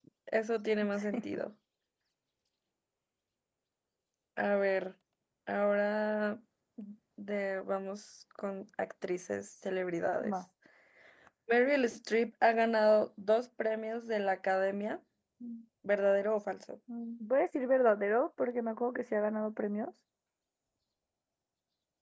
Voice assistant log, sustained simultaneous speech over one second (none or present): none